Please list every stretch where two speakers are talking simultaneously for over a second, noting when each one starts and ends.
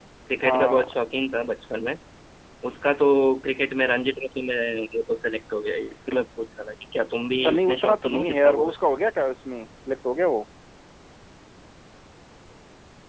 7.4-8.8

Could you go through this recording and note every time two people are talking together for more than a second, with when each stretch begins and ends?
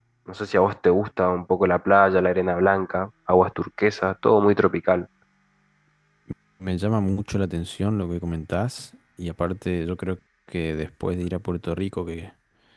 none

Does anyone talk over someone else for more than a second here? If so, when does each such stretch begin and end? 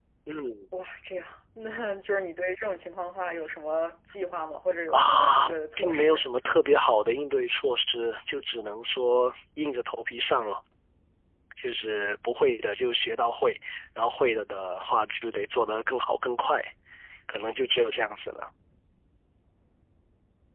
4.9-6.2

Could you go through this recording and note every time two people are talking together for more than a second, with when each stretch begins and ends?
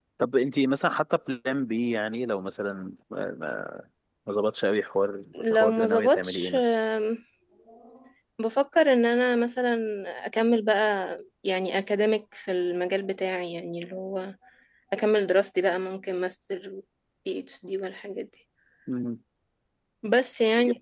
5.3-6.7

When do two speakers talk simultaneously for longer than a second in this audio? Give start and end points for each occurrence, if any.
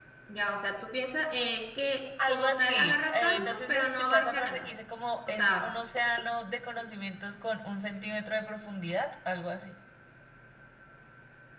2.3-4.7

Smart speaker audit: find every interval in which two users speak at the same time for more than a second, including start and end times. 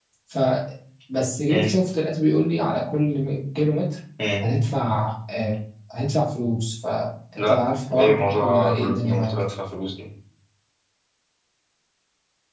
7.4-9.4

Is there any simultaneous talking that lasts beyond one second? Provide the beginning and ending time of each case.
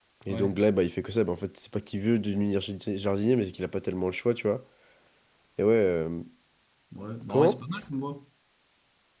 none

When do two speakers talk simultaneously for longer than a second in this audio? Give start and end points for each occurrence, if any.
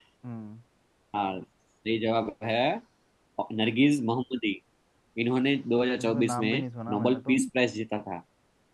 6.0-7.4

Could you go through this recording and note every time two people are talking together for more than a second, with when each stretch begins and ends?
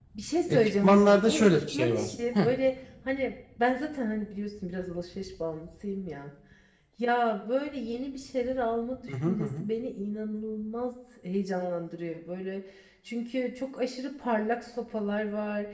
0.5-2.5

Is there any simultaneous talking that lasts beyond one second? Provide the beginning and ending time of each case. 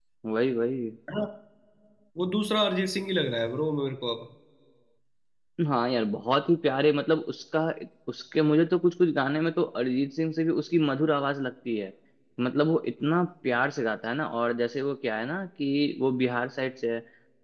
none

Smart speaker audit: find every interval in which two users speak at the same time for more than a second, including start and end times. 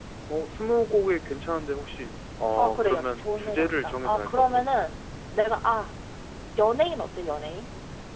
2.6-4.7

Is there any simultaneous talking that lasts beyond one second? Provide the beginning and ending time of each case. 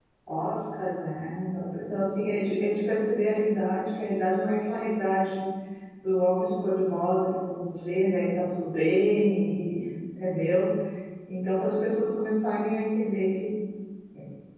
none

